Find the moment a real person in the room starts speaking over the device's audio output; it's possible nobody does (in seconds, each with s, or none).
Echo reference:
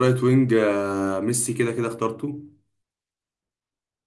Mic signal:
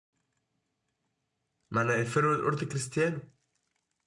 1.7 s